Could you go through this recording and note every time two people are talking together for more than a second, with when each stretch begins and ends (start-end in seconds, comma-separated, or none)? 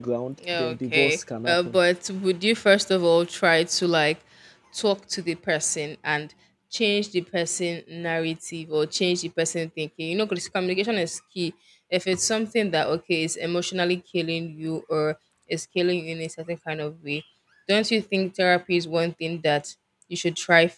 0.5-1.8